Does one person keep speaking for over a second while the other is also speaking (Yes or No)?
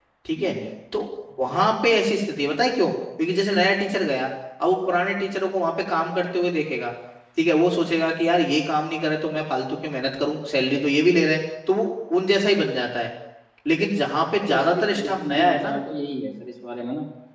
Yes